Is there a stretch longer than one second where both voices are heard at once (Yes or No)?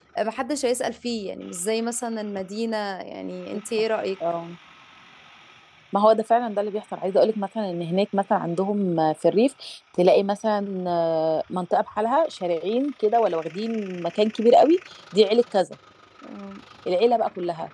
No